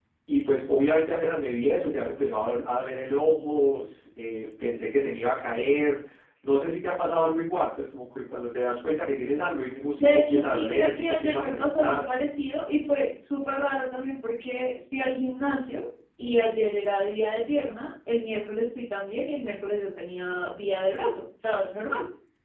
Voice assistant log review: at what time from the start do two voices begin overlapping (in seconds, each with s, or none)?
10.0 s